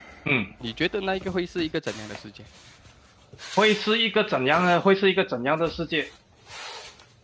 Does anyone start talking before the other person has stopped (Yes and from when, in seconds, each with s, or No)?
No